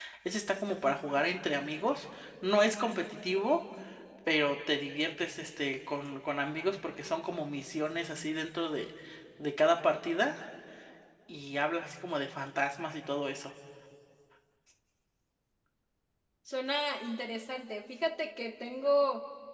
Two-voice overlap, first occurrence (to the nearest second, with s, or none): none